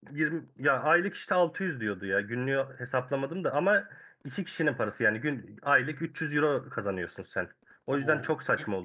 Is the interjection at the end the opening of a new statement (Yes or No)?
Yes